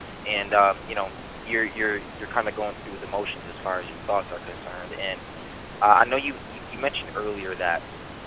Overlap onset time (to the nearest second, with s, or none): none